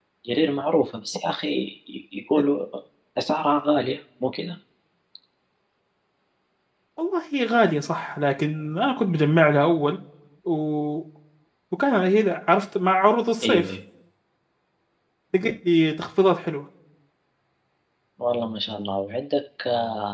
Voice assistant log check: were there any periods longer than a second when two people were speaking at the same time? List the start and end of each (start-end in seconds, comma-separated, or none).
none